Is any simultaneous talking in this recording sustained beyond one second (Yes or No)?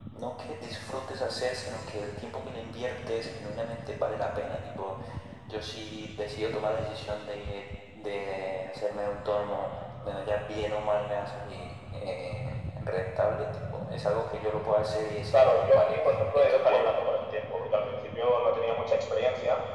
Yes